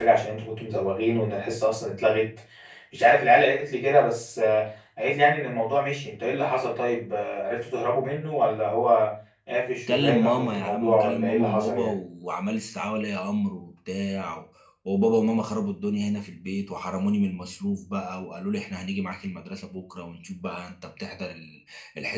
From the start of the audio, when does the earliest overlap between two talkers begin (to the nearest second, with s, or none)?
10 s